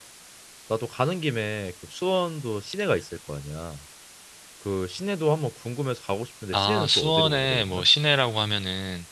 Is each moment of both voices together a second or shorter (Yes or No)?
No